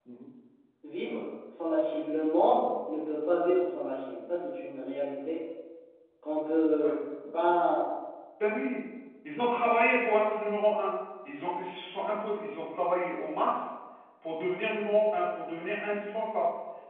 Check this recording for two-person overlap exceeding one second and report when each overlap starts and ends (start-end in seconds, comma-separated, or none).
none